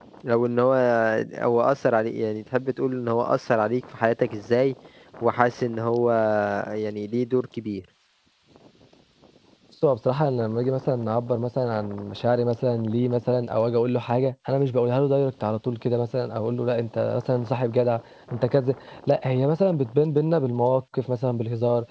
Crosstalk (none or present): none